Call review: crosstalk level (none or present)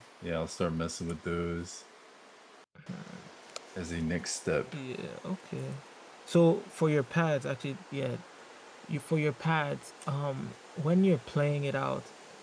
none